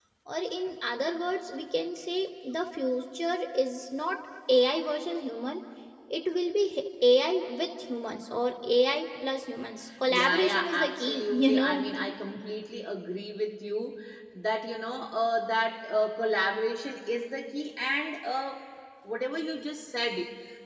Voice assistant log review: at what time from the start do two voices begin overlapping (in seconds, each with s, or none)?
10.1 s